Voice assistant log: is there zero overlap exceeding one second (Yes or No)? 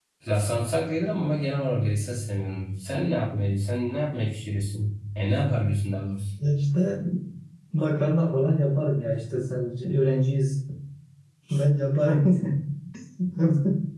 Yes